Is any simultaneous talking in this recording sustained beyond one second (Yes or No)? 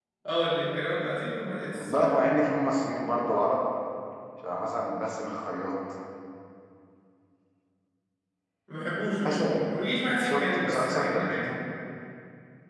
Yes